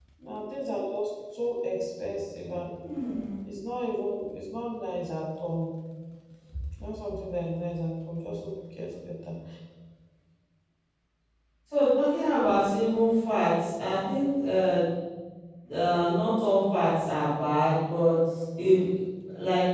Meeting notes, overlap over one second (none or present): none